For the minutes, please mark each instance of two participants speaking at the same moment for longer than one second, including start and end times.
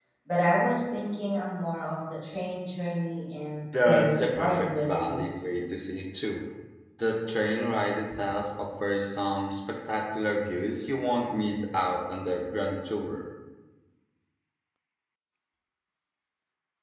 3.9-5.5

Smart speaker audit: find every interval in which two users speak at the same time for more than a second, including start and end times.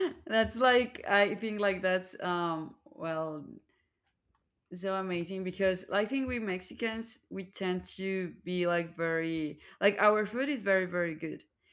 none

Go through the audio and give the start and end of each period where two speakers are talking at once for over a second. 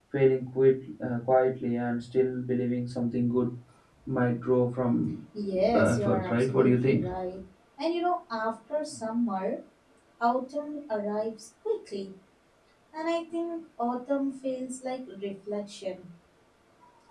5.5-7.0

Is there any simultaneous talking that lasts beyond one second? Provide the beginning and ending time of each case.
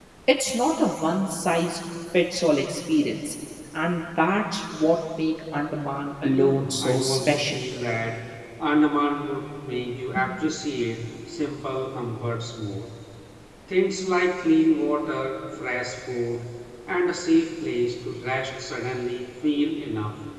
6.3-7.6

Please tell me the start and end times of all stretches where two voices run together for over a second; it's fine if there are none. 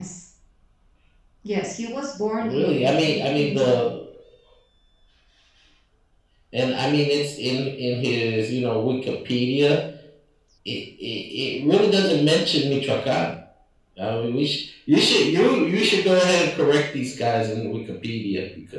2.4-3.8

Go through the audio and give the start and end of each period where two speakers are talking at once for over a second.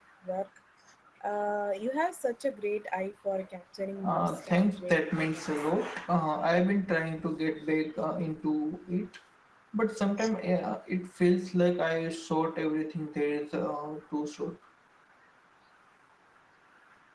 4.0-5.7

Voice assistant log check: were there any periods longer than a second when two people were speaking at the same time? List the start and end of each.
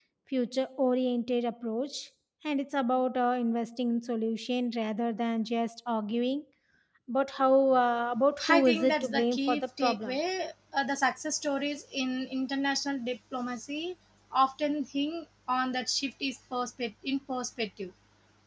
8.5-10.2

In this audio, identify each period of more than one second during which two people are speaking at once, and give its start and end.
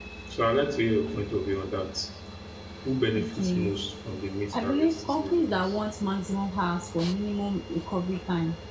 4.5-5.8

